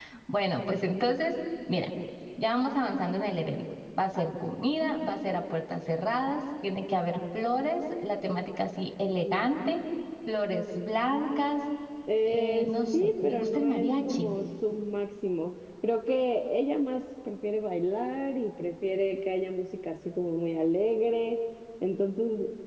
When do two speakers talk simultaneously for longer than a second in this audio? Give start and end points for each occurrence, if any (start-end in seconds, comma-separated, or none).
12.2-14.4